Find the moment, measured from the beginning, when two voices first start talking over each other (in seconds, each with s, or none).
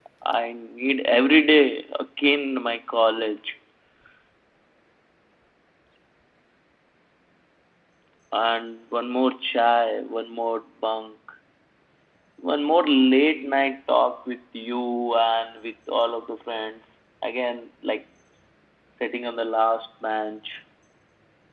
none